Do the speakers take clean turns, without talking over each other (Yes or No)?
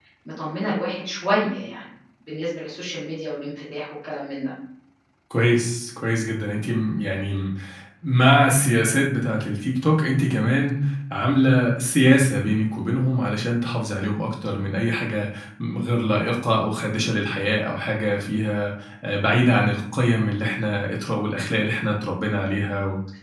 Yes